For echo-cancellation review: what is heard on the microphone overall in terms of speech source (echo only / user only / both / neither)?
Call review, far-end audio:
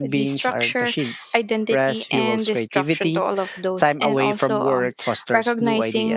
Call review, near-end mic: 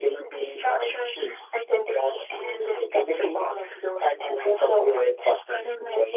echo only